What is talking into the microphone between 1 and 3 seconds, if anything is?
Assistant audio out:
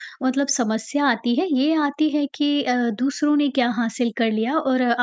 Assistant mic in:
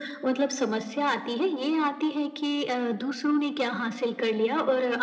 echo only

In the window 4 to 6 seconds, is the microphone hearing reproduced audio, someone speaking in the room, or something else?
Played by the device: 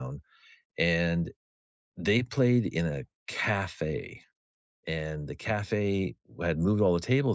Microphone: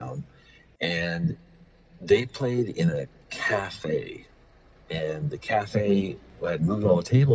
echo only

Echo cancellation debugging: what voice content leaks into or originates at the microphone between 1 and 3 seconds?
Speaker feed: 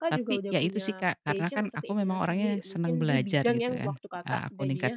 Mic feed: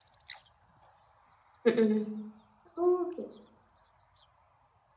user only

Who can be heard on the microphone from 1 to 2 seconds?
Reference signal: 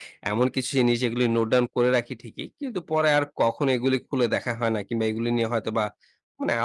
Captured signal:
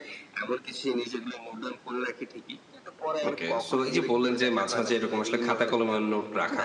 echo only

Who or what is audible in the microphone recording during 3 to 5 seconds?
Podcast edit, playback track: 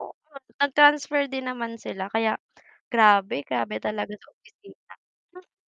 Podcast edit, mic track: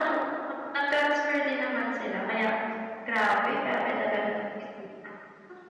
echo only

